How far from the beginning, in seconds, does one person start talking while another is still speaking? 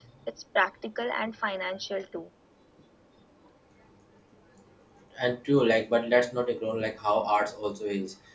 none

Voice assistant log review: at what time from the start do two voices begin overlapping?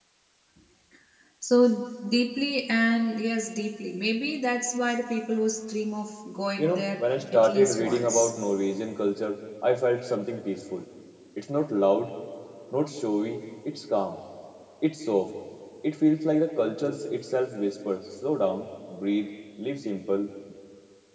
7 s

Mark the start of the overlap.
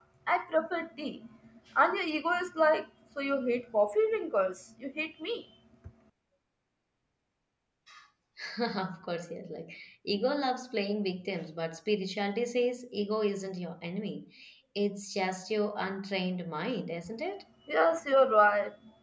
none

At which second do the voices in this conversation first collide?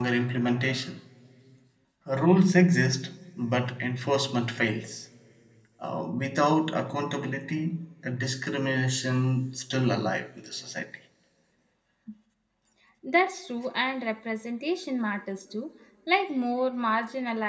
none

